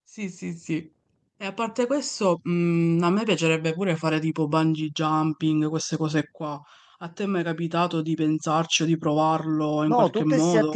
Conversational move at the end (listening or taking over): taking over